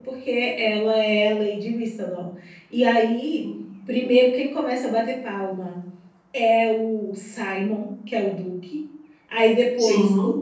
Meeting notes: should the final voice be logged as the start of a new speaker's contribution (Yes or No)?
No